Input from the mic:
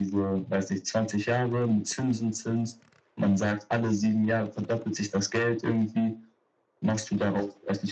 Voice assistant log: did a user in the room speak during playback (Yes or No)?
No